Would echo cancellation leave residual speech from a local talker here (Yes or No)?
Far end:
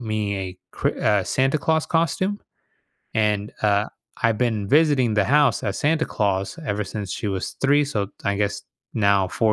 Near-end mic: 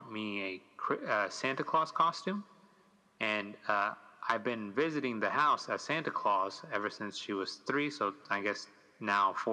No